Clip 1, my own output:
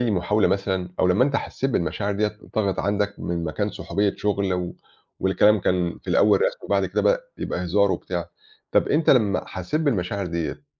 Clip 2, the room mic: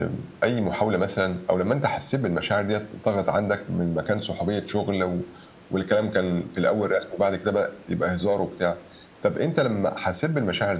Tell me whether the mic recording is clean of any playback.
No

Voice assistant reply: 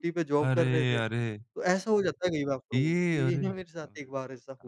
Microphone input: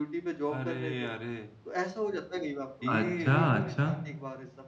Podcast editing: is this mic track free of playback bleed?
No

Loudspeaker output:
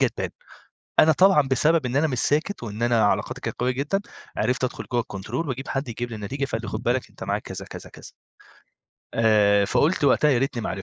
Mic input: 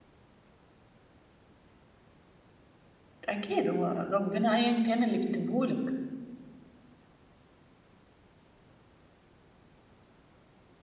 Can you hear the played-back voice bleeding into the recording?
No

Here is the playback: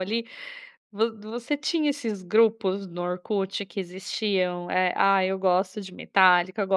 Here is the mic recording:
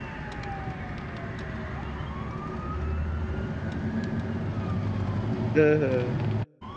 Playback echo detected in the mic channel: No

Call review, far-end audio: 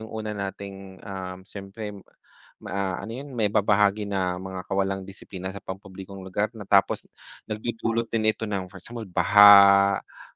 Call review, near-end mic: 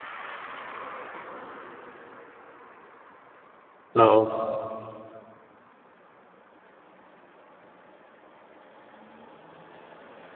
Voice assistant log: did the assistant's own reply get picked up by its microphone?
No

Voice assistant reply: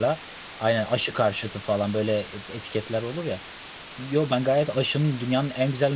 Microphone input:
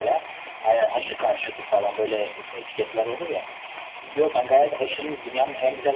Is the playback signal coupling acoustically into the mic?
Yes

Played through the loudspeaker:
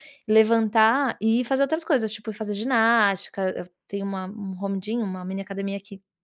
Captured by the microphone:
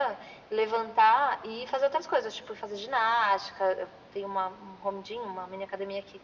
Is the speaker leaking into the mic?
Yes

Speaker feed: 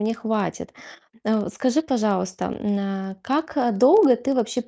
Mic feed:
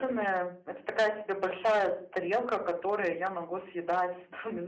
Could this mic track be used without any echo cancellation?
Yes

